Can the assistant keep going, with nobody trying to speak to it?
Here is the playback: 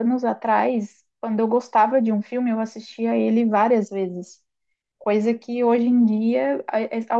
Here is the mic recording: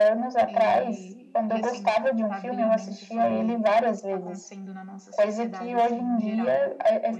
No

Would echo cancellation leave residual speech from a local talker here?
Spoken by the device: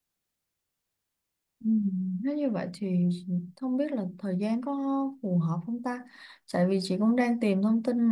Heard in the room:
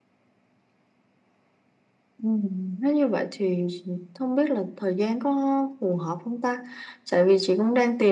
No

